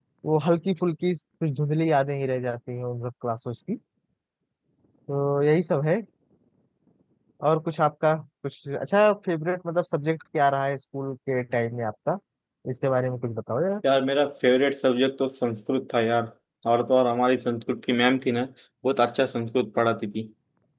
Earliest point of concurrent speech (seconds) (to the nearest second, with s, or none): none